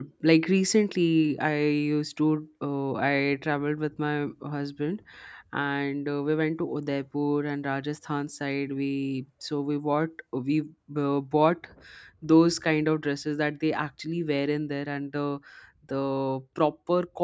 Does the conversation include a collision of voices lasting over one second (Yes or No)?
No